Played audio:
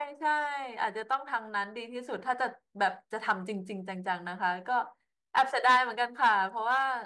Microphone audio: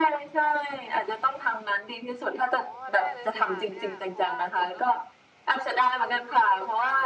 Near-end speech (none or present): present